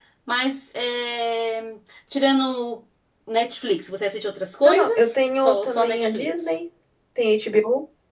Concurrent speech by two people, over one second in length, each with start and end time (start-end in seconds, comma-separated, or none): 4.6-6.5